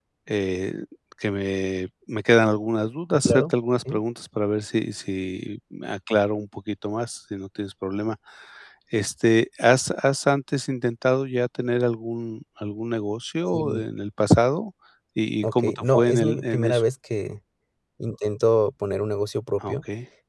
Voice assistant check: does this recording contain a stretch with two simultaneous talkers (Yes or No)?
Yes